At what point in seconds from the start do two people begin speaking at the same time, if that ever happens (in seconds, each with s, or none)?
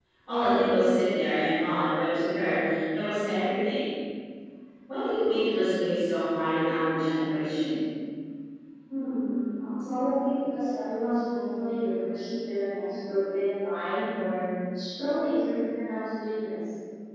none